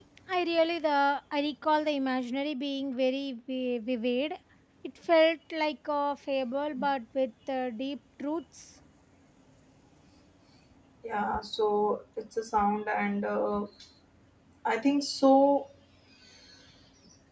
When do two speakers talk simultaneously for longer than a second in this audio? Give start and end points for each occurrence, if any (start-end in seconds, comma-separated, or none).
none